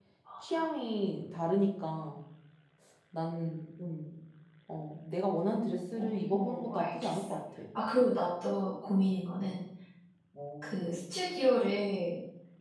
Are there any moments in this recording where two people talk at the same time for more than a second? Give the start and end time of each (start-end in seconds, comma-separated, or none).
5.9-7.2